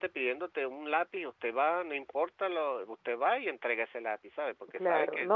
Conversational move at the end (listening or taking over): taking over